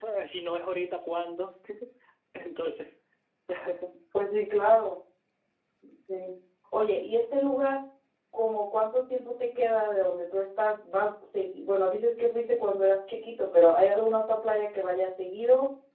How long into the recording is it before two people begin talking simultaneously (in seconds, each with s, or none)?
none